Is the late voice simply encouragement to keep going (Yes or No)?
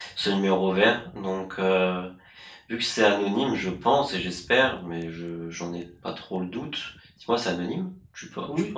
No